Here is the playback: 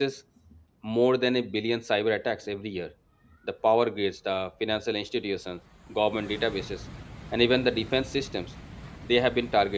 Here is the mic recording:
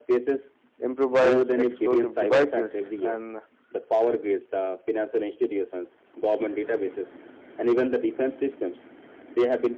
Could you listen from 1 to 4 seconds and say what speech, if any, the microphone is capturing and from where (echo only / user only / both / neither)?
both